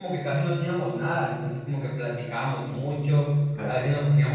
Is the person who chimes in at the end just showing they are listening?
Yes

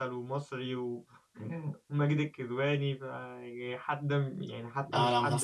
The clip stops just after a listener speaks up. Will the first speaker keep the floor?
No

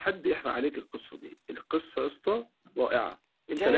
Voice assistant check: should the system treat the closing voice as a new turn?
Yes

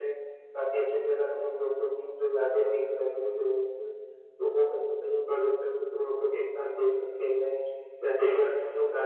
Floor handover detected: No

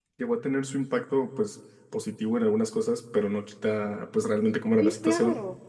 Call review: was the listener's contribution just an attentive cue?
No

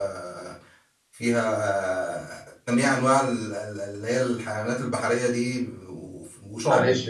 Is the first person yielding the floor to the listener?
Yes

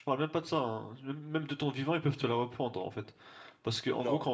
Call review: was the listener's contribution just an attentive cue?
Yes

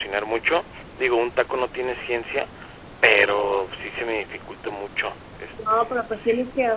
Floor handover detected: Yes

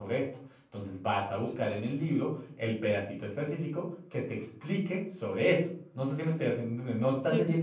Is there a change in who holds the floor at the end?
No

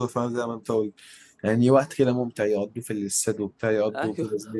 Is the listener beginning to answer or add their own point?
Yes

